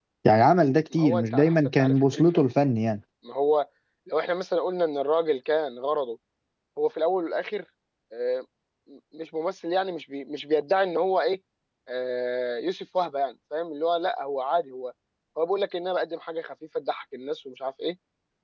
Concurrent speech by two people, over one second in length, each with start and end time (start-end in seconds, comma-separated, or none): 0.9-2.5